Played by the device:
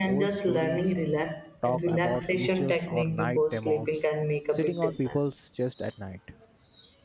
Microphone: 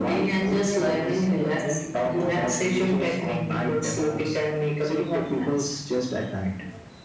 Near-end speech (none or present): present